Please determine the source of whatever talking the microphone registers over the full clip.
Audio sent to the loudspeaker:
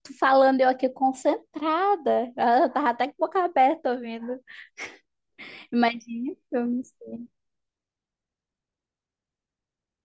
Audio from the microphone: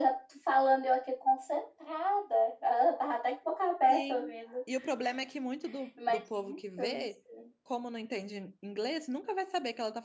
both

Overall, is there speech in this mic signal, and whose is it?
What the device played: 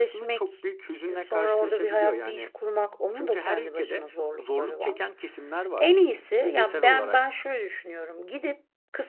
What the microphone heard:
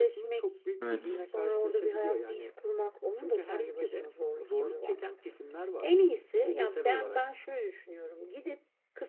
both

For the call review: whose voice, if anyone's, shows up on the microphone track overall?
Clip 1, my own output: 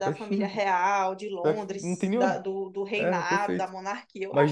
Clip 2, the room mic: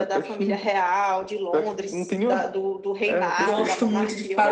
both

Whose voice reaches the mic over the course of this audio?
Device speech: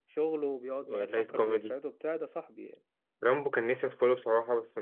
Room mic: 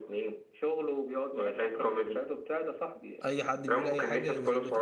both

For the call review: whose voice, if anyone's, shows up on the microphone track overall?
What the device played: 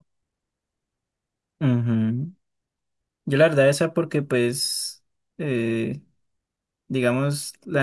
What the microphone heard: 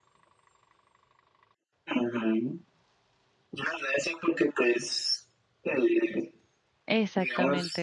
both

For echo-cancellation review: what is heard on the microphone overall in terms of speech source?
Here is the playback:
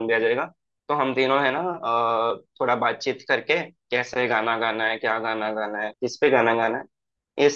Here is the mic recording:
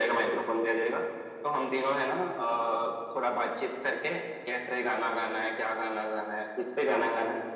echo only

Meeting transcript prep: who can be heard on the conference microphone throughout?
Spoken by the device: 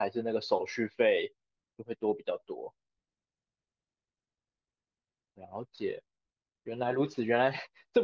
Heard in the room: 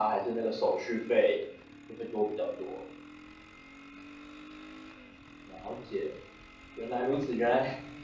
echo only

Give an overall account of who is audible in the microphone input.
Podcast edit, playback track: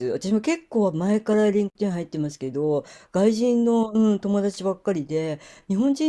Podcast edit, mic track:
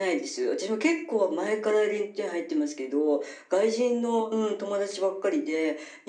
echo only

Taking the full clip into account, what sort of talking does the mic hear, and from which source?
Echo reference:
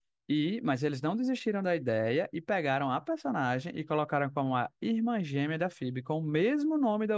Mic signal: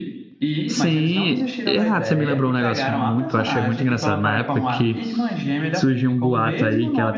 both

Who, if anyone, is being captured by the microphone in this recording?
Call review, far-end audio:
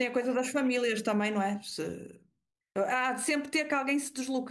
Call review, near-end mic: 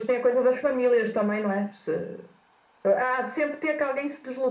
echo only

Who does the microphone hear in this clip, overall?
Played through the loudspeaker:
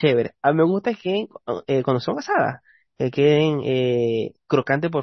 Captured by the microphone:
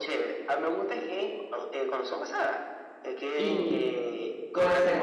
both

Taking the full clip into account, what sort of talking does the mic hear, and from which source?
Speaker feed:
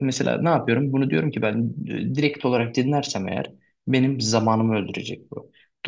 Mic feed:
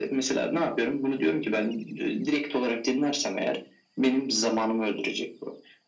echo only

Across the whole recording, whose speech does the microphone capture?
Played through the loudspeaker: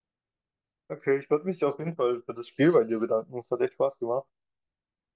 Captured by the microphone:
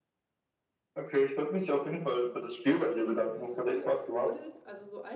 both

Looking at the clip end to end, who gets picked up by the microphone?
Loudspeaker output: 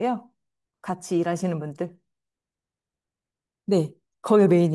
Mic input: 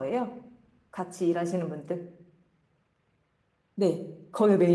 echo only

